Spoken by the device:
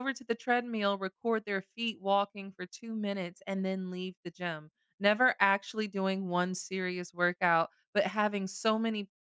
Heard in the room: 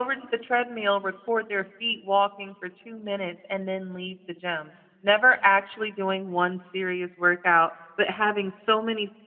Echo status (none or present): present